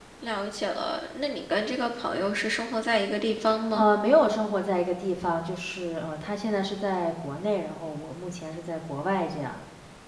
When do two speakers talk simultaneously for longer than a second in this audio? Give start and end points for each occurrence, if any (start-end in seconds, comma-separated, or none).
none